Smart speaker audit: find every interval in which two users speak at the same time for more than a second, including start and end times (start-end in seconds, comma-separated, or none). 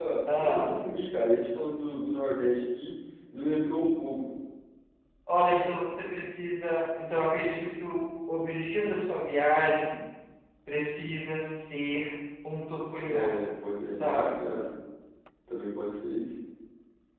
none